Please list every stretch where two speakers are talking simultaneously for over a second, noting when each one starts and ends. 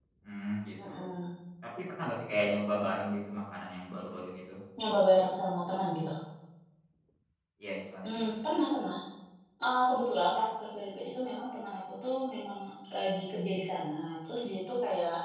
none

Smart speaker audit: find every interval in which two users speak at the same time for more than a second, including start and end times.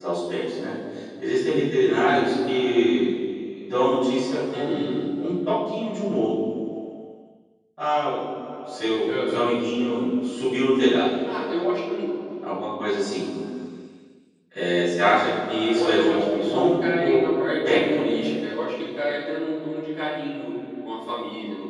15.7-17.2

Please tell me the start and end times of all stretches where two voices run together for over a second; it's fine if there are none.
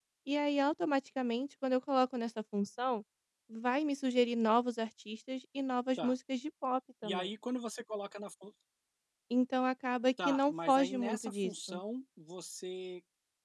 10.2-11.8

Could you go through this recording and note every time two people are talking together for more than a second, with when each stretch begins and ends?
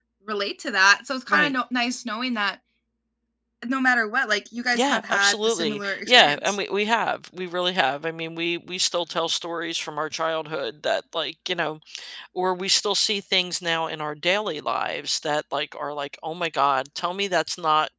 4.8-6.6

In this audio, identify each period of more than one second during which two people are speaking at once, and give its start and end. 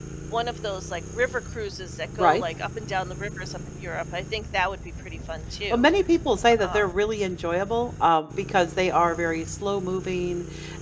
none

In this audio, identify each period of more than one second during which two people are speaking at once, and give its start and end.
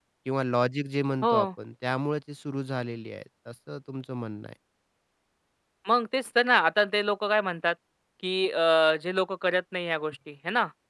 none

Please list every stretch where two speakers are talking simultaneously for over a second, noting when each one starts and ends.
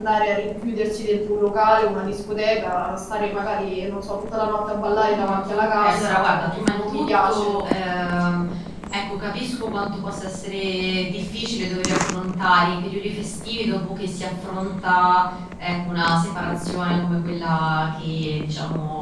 5.0-7.6

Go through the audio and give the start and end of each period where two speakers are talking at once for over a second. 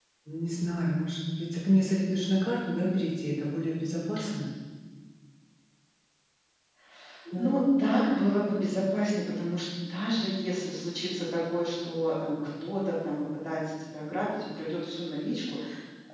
none

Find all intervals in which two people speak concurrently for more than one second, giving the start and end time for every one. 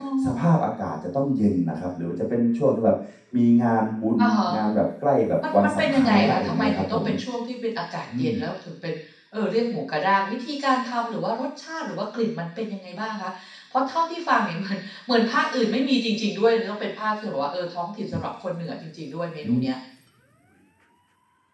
5.6-7.0

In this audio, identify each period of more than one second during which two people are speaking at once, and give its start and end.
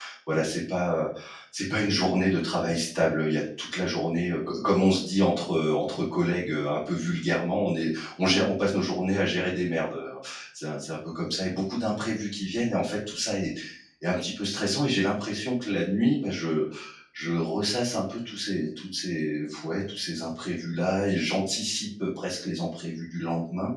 none

